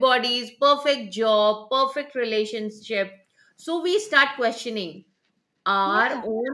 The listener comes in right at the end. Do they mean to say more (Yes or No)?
No